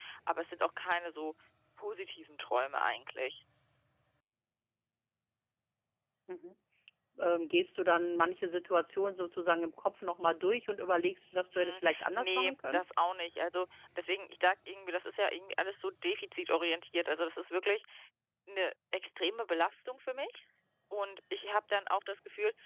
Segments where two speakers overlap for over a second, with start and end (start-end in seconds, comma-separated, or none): 11.5-12.8